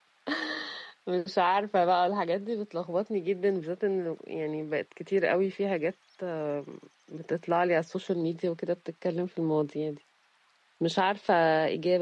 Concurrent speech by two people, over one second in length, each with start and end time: none

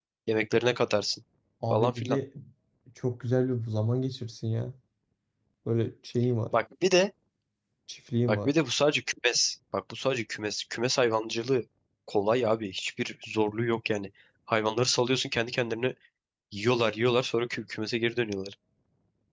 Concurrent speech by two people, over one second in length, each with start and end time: none

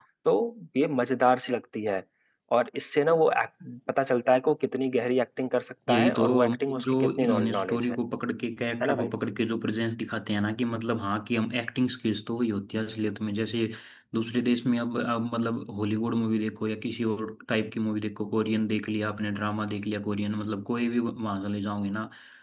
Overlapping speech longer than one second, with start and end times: 5.9-8.0

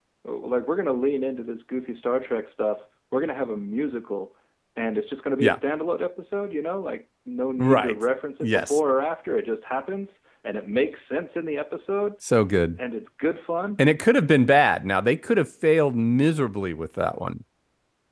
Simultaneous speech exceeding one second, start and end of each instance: none

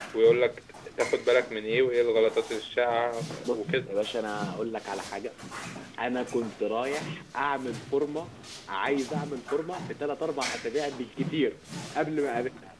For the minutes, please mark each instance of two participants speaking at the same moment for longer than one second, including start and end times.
none

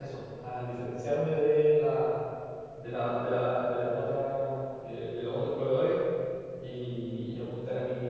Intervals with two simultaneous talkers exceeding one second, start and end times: none

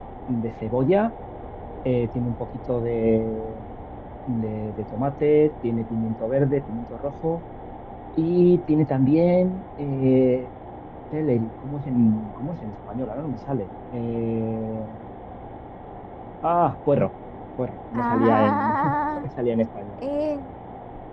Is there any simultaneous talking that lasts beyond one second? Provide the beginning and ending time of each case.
17.9-19.3

